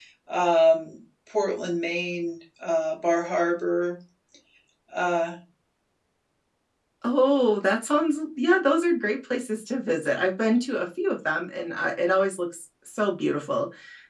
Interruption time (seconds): none

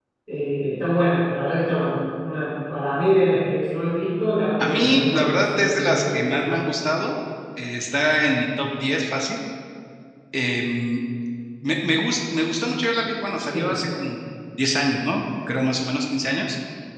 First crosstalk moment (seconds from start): 5 s

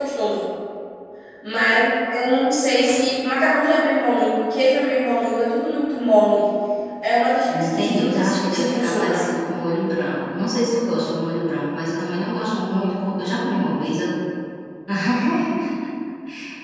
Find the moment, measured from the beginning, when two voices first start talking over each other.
7 s

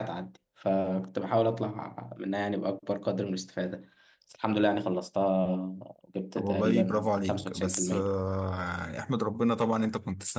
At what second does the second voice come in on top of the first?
6 s

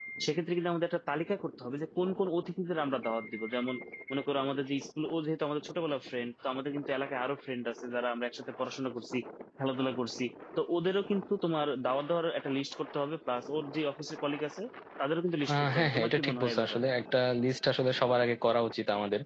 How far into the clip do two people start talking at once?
16 s

